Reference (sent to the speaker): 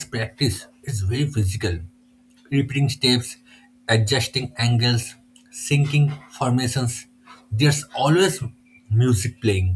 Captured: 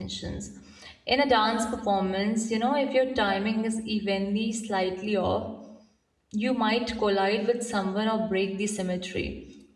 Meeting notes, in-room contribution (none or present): present